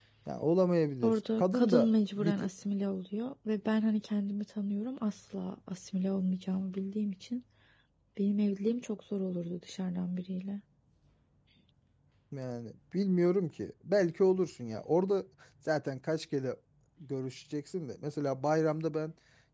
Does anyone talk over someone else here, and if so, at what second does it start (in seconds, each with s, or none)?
1.0 s